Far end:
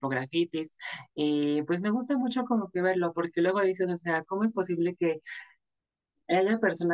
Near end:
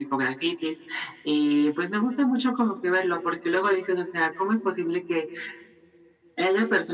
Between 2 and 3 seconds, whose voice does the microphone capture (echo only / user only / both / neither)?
echo only